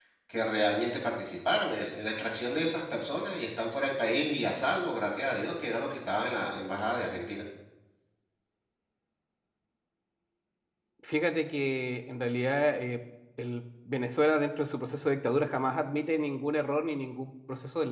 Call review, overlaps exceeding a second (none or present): none